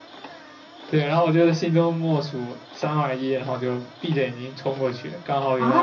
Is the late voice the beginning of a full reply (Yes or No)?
Yes